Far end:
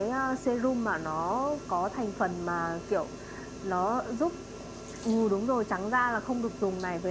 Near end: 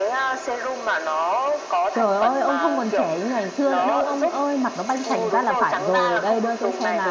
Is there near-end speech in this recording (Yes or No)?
Yes